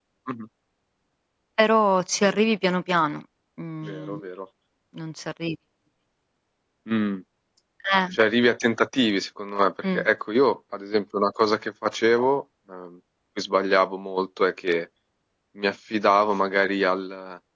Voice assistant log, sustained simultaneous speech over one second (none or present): none